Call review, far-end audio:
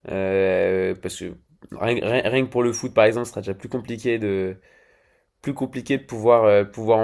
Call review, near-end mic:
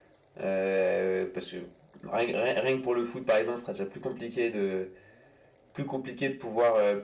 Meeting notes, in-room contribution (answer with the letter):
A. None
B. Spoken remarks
A